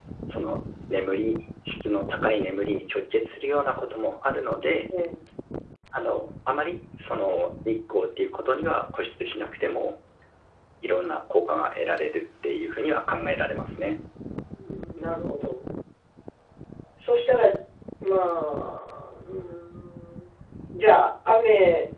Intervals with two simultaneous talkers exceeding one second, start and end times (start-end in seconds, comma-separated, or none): none